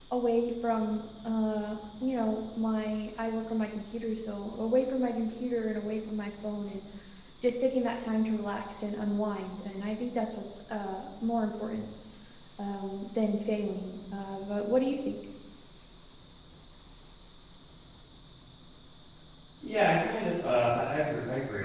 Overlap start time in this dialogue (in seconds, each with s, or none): none